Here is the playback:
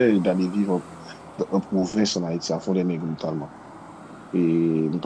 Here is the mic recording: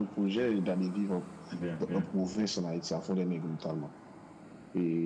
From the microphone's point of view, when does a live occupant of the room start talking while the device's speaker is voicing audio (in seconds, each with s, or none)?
1.5 s